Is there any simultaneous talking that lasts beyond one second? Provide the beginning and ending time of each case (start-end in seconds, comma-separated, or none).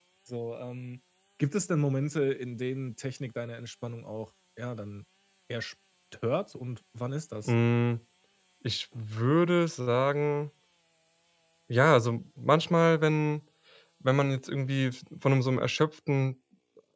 none